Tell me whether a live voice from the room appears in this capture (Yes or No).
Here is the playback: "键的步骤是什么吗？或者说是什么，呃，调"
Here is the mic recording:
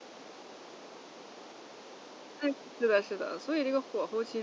Yes